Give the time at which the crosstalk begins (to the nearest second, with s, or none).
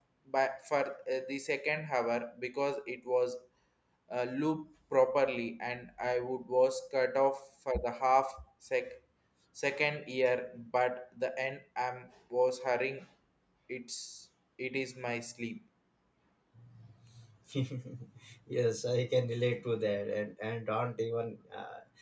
none